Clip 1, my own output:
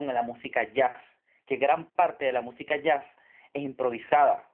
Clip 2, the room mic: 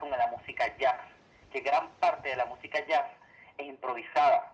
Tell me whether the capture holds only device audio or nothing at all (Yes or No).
Yes